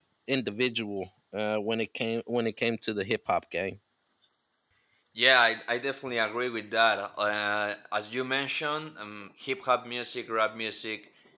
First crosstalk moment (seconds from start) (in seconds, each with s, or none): none